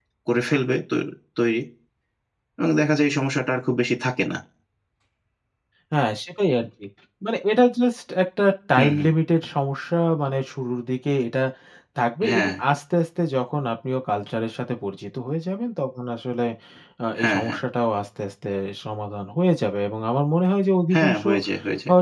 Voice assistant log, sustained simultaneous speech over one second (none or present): none